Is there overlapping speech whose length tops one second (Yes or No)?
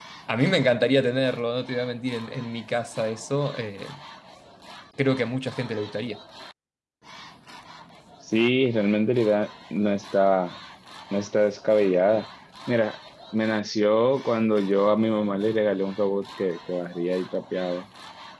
No